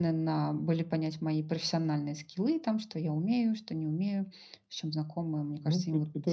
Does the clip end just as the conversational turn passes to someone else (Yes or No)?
Yes